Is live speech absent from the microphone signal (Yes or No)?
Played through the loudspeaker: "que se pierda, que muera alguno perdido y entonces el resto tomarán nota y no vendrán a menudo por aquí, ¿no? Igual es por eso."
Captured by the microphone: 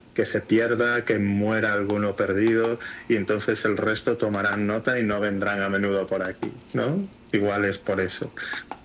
Yes